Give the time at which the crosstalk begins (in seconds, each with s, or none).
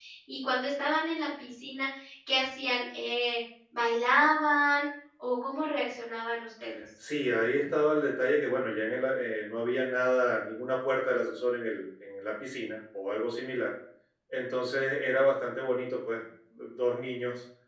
none